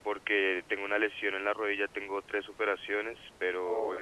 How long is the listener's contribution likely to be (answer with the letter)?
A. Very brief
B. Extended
A